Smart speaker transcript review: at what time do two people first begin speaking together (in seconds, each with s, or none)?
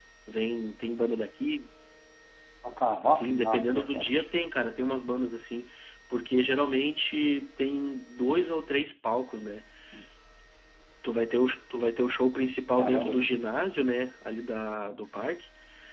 3.0 s